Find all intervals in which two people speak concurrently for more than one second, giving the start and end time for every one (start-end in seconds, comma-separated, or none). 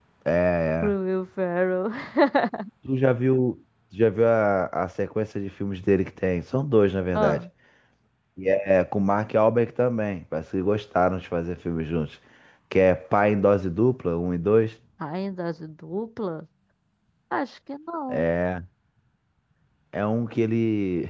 none